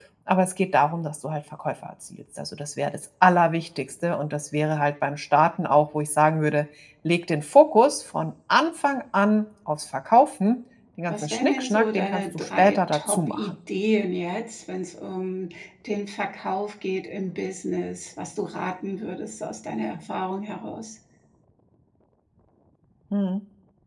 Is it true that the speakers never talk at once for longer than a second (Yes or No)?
No